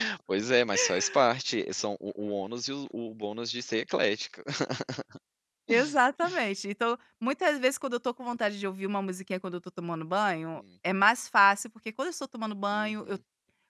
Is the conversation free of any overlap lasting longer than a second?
Yes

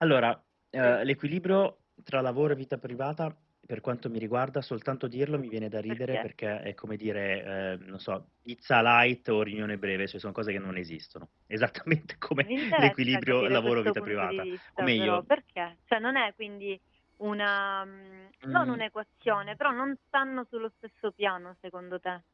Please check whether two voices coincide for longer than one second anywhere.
Yes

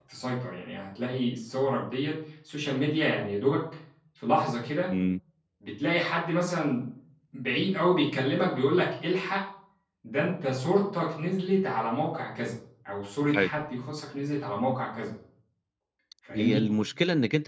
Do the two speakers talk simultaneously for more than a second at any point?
No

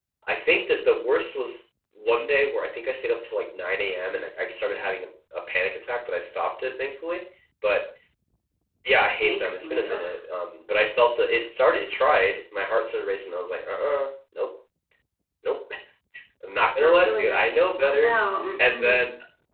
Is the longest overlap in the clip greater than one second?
Yes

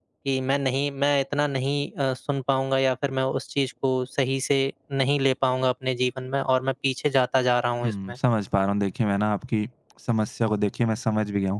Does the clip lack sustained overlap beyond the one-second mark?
Yes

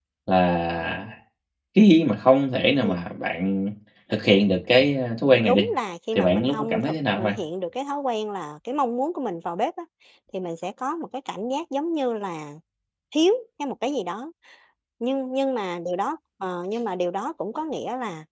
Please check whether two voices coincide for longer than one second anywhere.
Yes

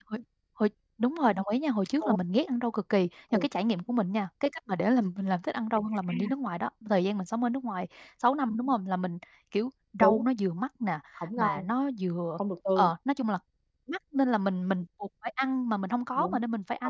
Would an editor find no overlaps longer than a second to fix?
Yes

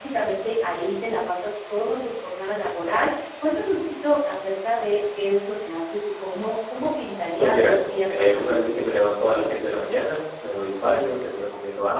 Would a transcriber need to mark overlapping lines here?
Yes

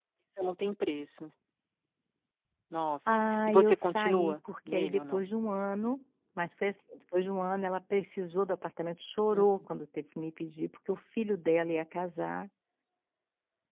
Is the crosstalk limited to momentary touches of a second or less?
No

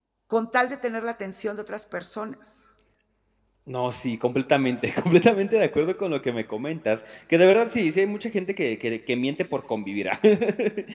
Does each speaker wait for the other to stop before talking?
Yes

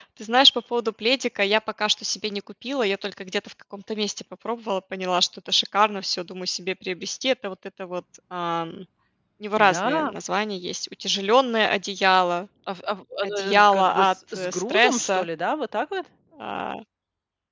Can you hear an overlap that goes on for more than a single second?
Yes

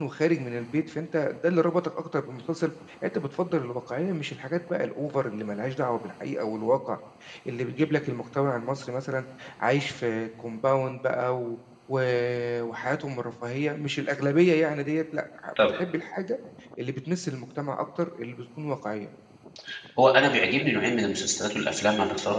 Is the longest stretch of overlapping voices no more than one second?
Yes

